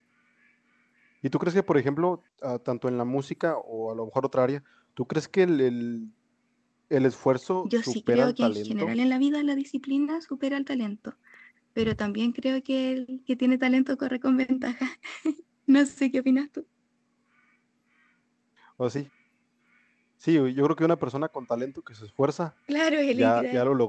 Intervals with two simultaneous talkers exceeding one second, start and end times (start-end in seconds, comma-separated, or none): 7.6-8.9